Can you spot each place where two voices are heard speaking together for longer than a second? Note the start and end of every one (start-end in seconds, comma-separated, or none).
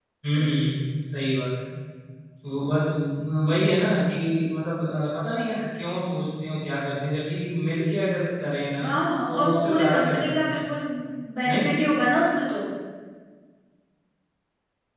9.3-10.6